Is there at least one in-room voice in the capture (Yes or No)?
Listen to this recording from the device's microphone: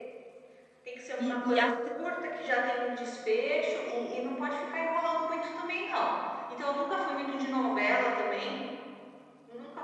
Yes